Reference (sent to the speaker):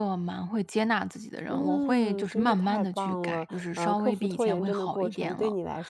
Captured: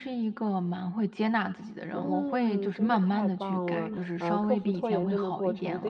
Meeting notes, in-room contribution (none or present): present